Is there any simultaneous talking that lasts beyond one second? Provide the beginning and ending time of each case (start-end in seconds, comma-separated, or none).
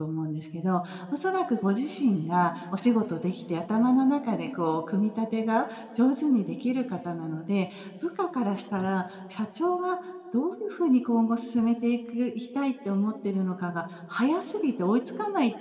none